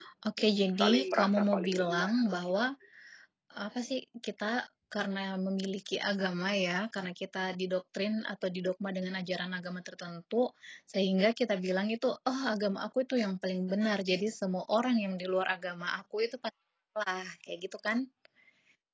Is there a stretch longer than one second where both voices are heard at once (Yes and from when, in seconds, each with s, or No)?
Yes, from 0.7 s